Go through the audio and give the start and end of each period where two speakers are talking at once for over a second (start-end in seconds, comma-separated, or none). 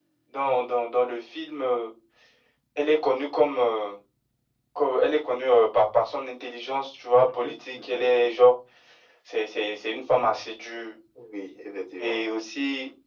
7.3-8.5